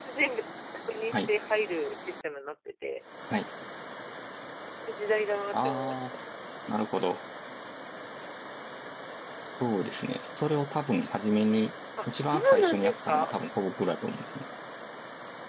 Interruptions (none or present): present